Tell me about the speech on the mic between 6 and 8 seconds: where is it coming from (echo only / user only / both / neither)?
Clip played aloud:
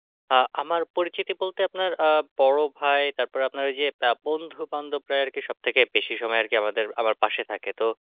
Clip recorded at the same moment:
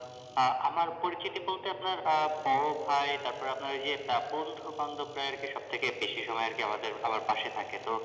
echo only